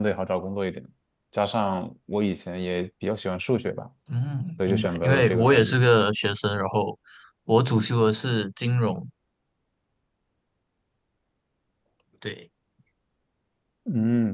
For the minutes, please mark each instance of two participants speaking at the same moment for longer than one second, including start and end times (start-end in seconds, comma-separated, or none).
4.6-5.8